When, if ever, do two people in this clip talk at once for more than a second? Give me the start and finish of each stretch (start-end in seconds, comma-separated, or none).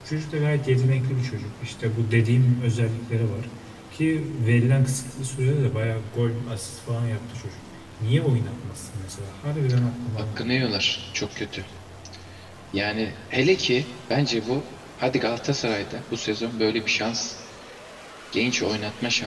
none